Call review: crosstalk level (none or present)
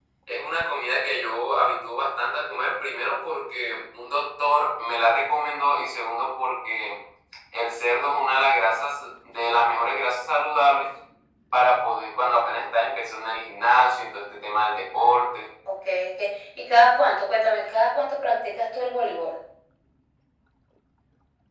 none